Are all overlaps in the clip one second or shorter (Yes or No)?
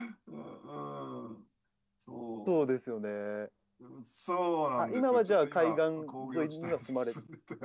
No